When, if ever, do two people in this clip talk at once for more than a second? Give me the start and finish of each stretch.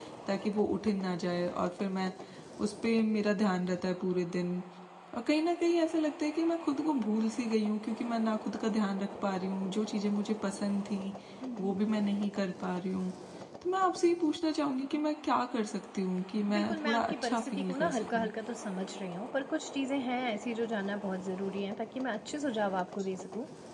16.5-18.3

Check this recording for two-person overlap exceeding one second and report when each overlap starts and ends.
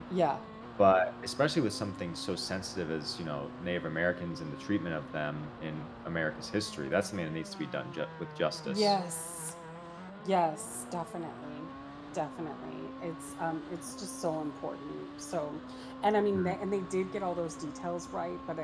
none

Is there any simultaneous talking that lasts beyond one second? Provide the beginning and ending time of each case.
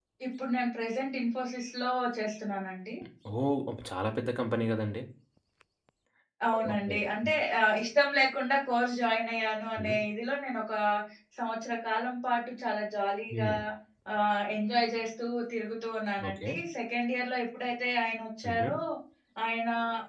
none

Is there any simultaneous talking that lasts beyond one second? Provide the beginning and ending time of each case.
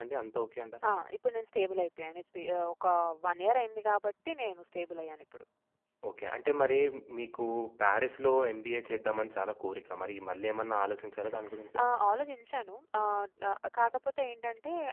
none

